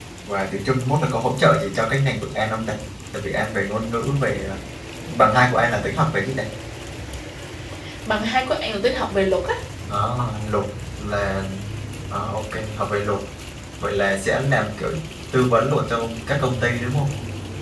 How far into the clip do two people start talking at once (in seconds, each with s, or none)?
none